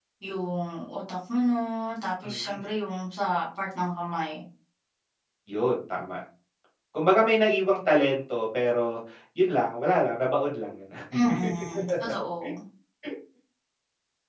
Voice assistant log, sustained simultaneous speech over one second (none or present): none